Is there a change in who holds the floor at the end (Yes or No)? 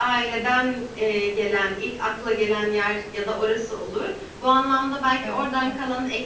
No